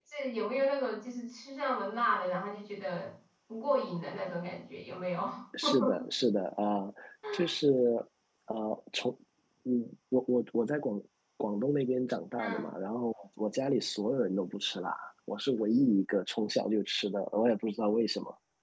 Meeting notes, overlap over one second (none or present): none